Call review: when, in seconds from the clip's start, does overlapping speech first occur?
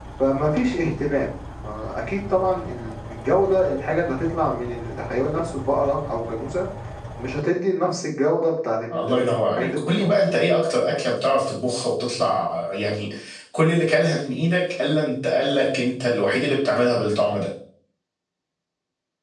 9 s

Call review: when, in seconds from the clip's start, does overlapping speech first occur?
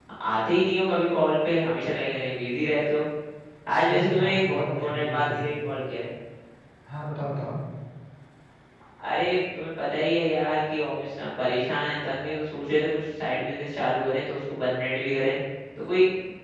4 s

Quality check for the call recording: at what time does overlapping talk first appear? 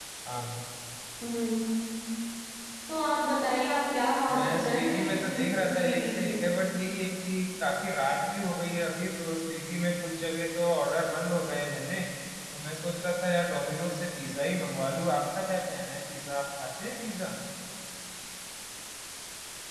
4 s

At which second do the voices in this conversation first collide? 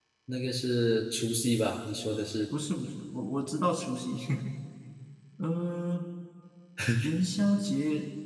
none

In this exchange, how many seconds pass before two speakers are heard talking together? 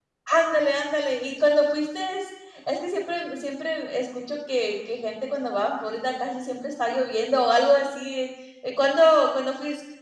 none

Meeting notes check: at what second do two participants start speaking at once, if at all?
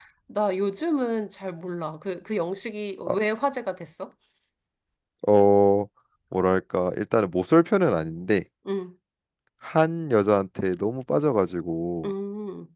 none

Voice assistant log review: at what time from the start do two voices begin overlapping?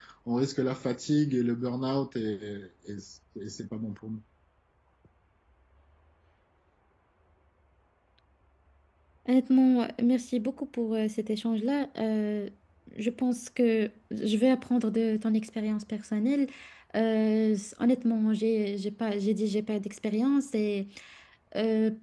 none

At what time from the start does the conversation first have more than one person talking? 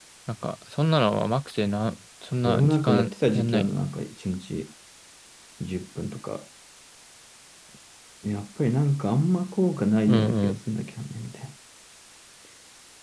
2 s

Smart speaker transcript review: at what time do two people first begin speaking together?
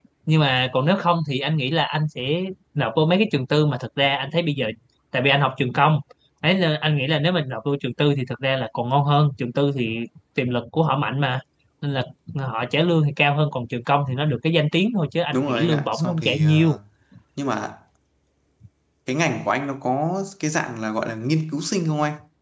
15 s

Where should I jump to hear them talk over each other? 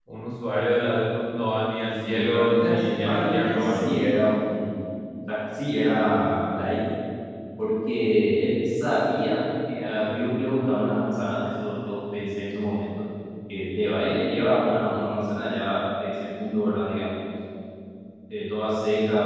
2 s

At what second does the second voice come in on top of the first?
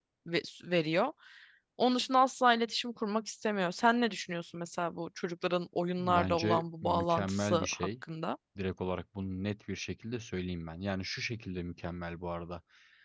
6 s

